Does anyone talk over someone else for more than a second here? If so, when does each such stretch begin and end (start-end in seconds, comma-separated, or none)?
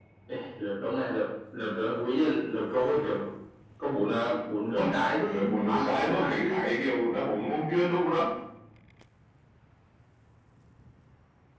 5.2-6.6